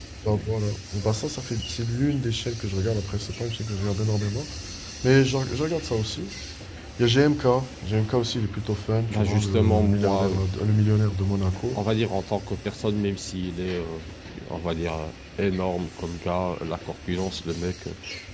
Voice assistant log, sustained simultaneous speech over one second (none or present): present